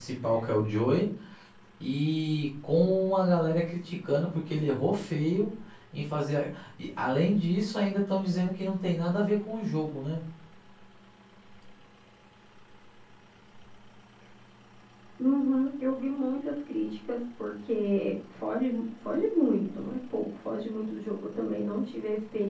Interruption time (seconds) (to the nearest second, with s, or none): none